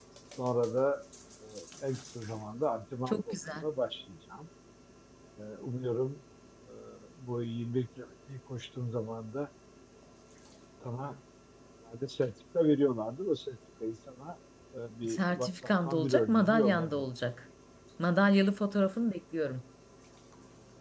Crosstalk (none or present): present